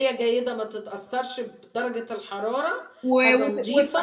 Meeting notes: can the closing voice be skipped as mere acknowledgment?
No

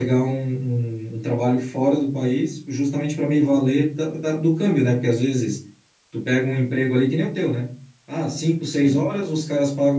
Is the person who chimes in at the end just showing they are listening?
Yes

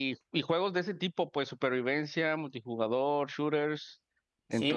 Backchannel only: No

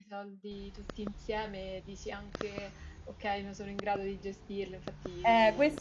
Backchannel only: No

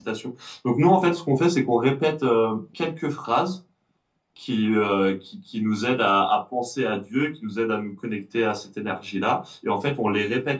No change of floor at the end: Yes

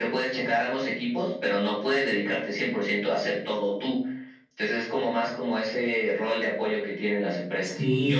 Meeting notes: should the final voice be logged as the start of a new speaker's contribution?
Yes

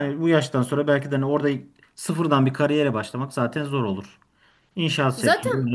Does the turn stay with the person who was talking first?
Yes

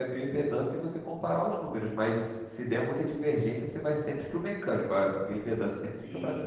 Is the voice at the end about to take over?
Yes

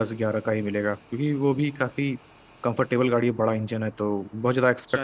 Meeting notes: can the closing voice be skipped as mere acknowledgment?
No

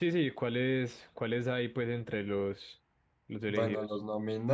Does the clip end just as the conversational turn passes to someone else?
Yes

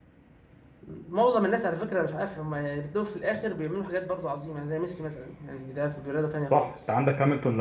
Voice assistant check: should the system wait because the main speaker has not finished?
No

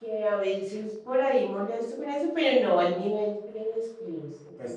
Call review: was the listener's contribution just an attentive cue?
No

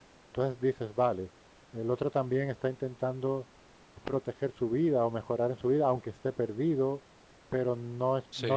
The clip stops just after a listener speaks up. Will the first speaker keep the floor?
Yes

